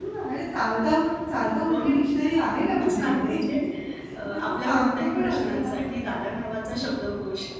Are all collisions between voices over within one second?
No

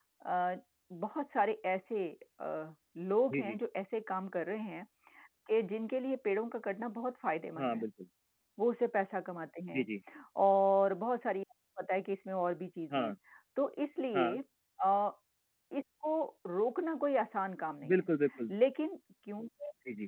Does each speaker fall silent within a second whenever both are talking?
Yes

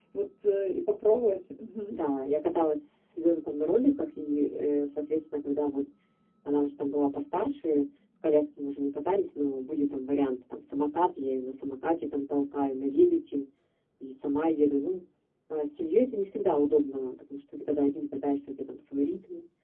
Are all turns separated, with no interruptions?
Yes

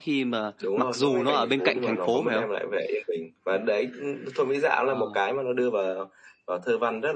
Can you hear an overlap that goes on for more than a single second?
Yes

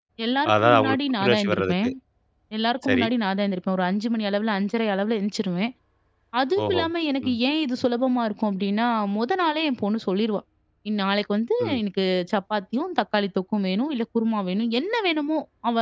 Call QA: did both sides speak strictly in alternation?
No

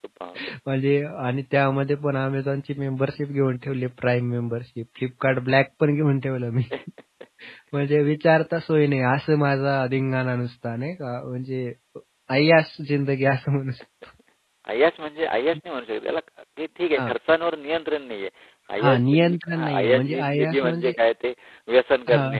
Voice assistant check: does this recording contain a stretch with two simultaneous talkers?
Yes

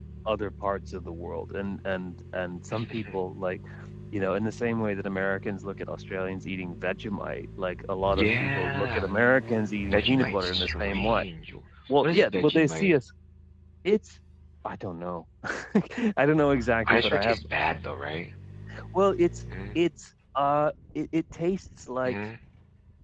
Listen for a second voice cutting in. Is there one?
Yes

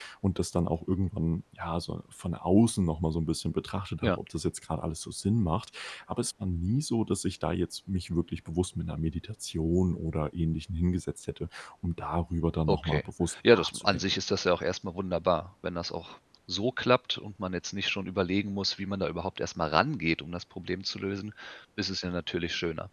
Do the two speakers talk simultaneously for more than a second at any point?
Yes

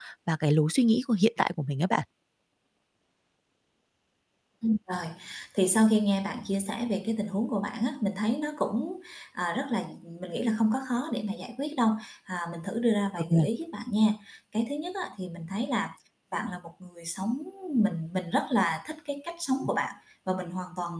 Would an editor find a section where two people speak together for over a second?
No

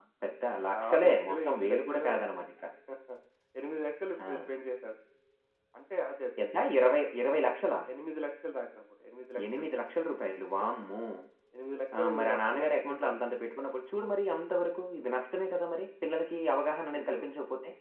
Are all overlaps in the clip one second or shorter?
No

